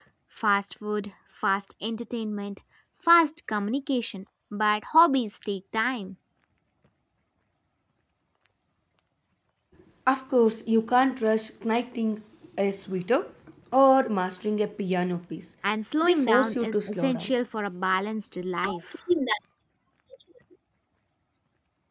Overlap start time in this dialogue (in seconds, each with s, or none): 16.0 s